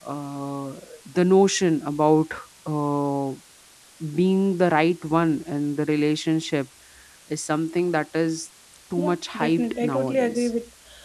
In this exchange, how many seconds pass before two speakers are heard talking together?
9.0 s

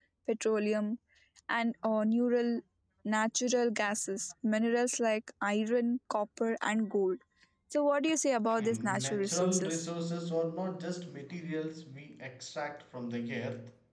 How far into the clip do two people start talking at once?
8.5 s

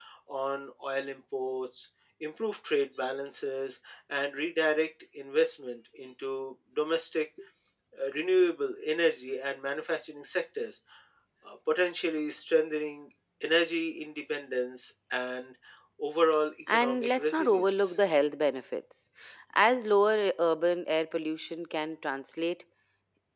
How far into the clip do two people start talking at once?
16.7 s

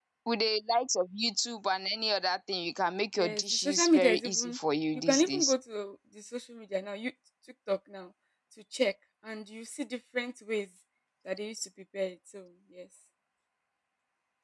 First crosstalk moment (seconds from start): 3.2 s

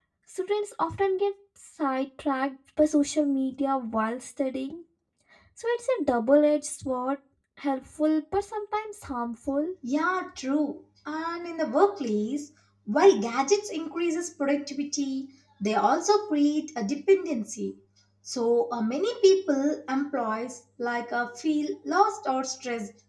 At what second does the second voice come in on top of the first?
none

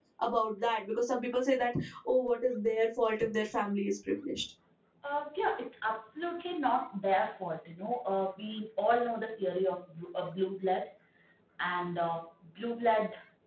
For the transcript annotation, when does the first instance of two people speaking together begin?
none

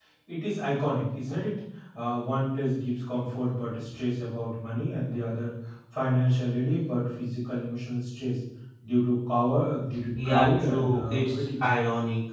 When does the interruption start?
10.1 s

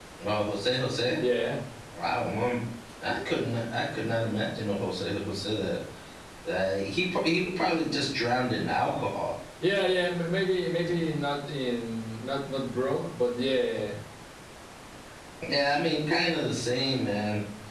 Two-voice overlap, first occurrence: none

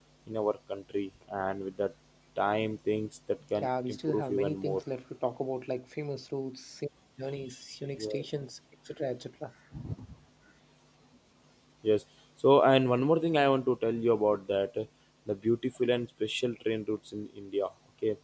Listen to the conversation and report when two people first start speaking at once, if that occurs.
3.6 s

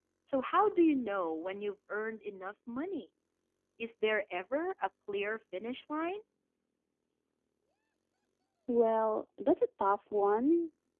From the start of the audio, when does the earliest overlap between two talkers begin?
none

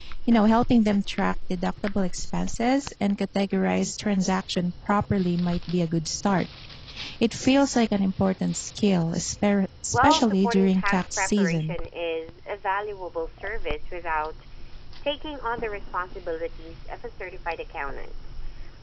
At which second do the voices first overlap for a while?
9.9 s

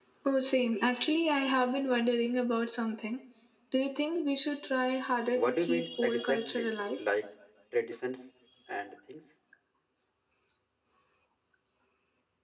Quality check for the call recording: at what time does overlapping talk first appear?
5.3 s

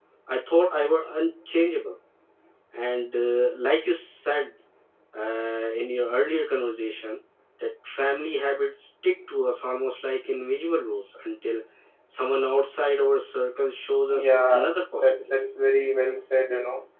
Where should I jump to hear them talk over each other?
14.1 s

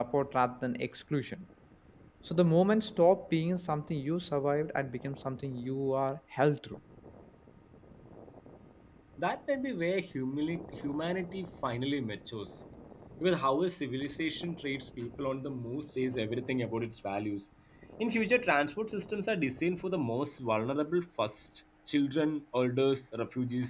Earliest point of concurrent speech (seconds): none

